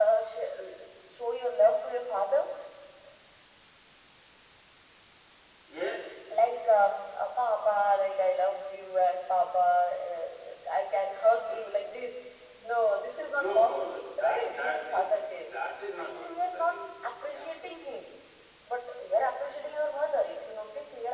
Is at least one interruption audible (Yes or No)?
Yes